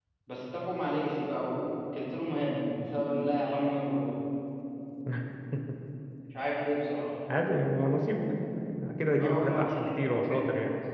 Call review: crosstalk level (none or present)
present